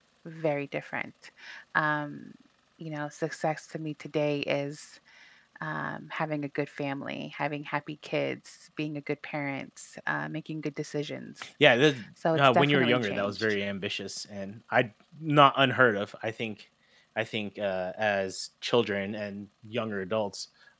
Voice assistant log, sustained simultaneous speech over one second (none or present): present